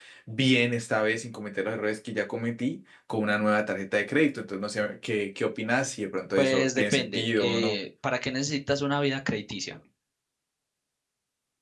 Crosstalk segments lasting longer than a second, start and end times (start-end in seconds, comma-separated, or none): 6.4-7.8